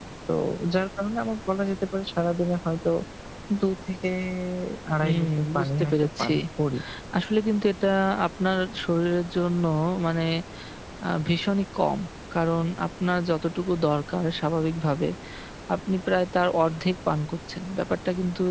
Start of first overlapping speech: 5.0 s

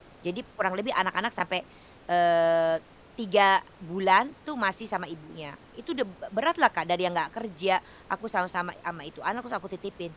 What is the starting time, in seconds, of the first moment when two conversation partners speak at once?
none

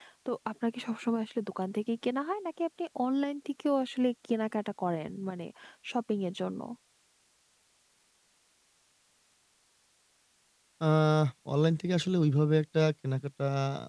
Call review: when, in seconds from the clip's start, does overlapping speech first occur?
none

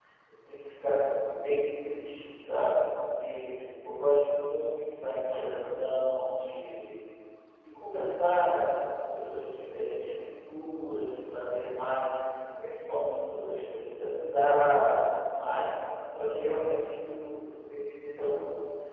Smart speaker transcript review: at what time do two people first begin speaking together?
none

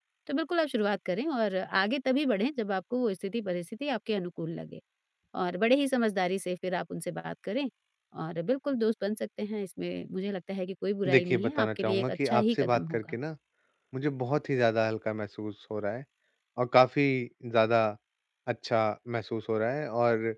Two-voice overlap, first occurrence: 11.1 s

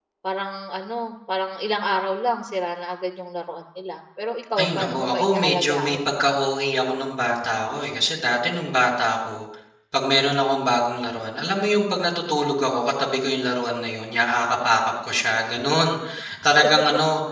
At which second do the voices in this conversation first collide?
4.6 s

